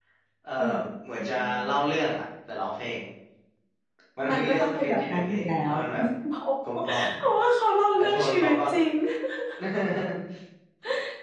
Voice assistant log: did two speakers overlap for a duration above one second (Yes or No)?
Yes